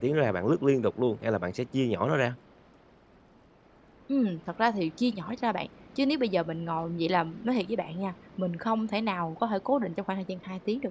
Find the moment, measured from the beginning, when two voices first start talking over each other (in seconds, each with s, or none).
none